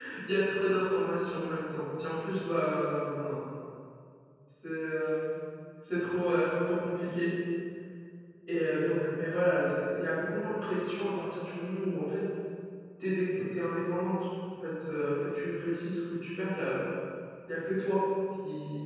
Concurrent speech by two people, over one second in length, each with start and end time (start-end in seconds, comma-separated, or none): none